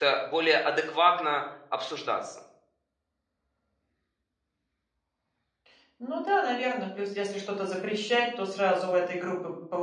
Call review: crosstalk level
none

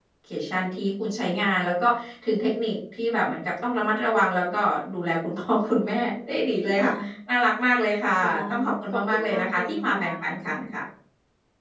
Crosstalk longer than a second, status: present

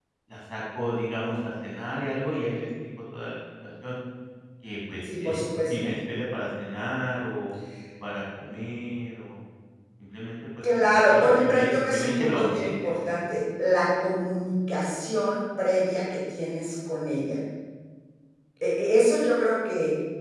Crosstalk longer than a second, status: present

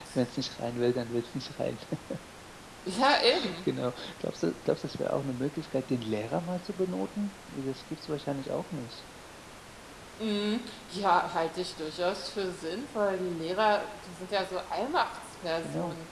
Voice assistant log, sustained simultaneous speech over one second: none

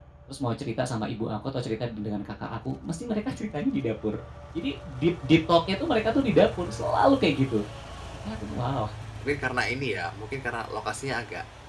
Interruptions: none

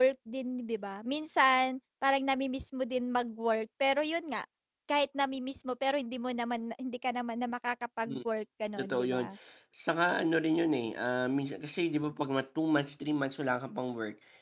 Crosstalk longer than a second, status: none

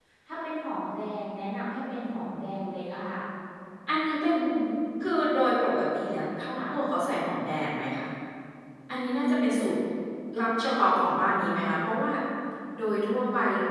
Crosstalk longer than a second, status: none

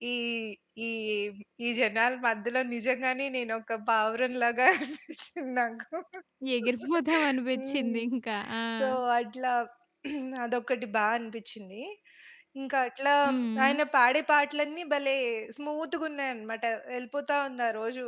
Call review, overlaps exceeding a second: none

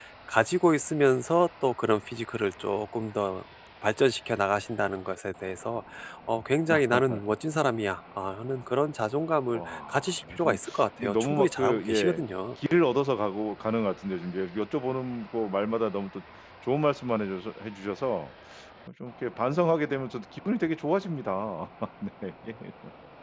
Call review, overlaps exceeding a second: present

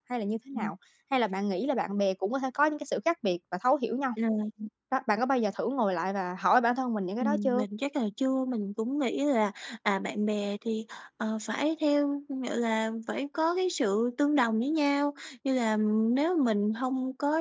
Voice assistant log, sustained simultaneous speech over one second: none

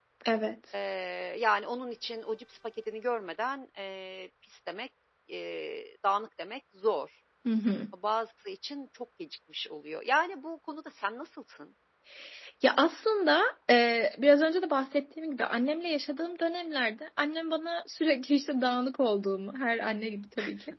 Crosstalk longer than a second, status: none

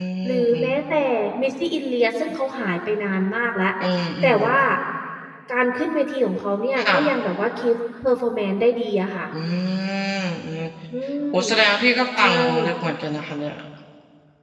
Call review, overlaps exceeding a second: none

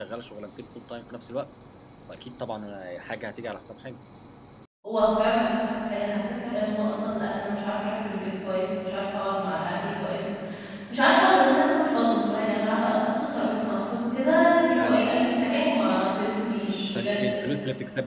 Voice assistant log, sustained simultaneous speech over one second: none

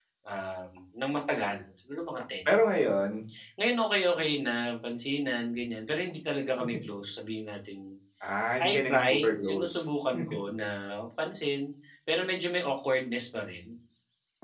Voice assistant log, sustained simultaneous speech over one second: present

